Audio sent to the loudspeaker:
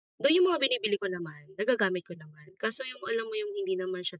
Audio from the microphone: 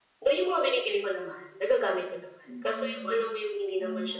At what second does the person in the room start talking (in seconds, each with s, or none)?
2.4 s